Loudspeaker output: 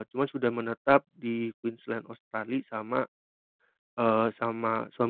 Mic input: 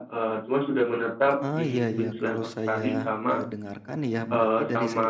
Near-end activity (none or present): present